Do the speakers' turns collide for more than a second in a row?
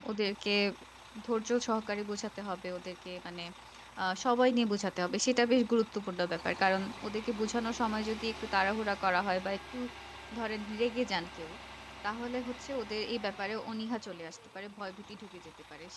No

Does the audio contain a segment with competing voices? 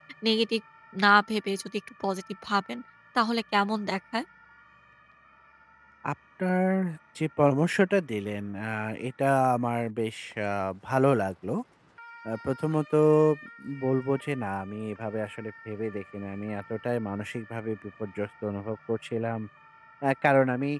No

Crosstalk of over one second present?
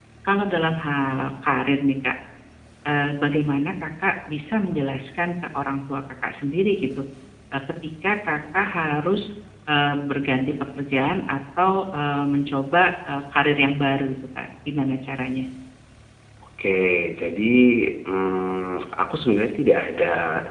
No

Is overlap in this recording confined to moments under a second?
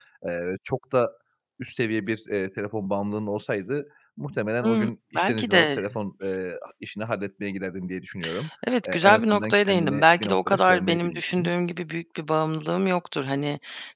No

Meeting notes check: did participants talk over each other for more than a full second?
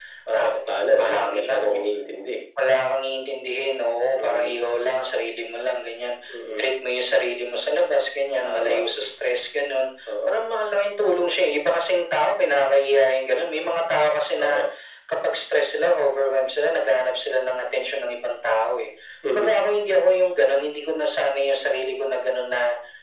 Yes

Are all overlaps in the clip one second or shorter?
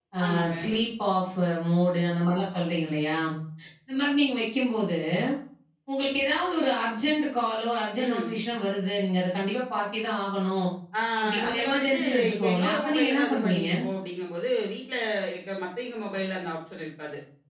No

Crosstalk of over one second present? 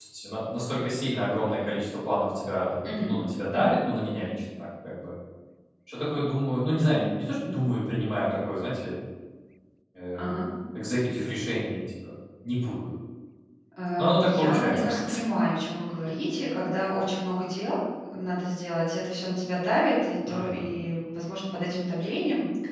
Yes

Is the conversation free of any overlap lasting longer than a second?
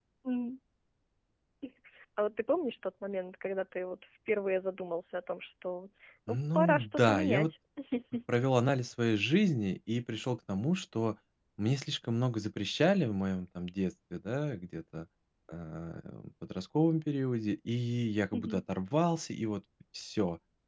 No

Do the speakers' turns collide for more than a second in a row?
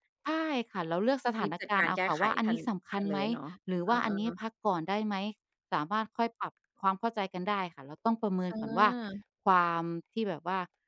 Yes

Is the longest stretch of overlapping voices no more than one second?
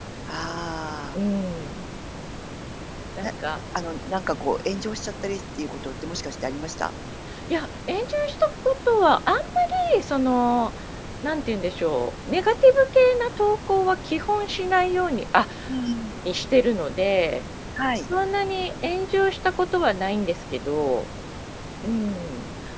Yes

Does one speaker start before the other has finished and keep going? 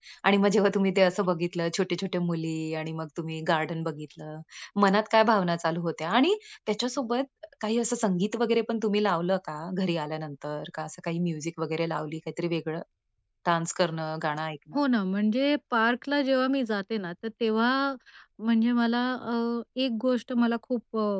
No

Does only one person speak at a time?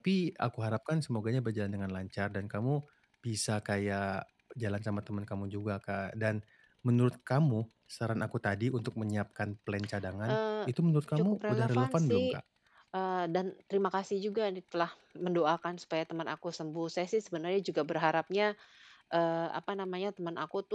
No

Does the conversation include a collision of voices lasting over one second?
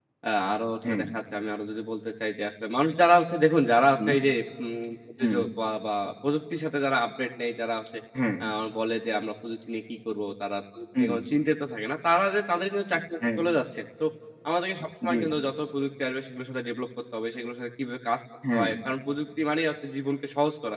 No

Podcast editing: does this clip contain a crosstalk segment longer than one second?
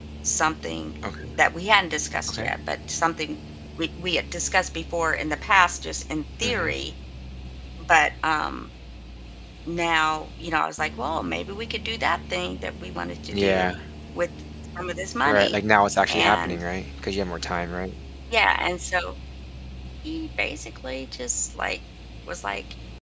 No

